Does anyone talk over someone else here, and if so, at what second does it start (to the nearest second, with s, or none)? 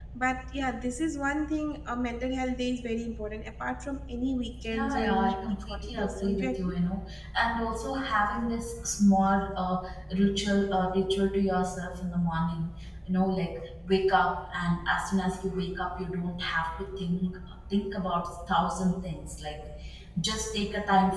5 s